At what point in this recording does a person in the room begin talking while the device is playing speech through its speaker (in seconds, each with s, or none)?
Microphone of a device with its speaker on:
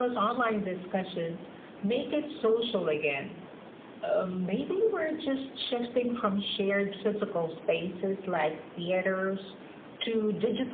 none